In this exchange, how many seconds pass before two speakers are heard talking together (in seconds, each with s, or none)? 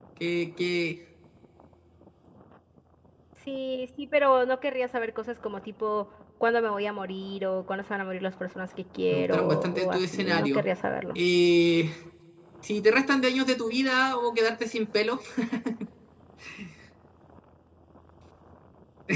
9.1 s